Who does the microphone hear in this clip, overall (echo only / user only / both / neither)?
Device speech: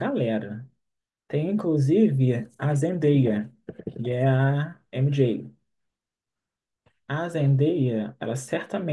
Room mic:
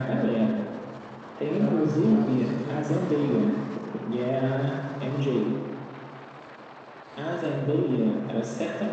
both